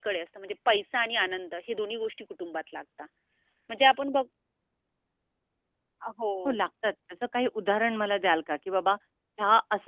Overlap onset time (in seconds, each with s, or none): none